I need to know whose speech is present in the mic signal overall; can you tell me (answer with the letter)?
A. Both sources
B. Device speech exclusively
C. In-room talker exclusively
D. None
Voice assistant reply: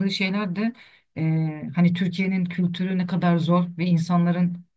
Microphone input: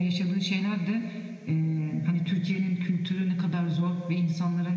B